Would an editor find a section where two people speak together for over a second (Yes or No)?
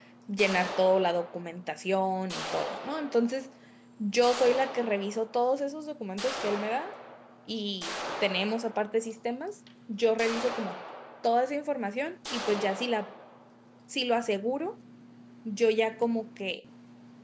No